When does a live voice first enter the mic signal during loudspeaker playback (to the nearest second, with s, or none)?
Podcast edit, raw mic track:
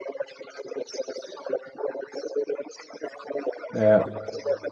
4 s